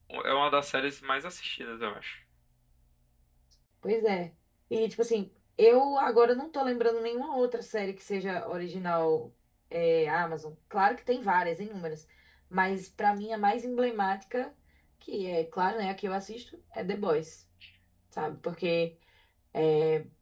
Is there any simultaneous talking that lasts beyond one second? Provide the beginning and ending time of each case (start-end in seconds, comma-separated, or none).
none